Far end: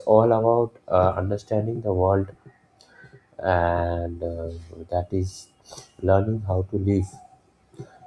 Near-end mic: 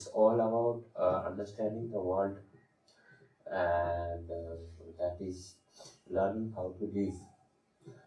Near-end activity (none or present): none